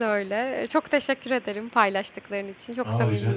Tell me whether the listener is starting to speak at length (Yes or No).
Yes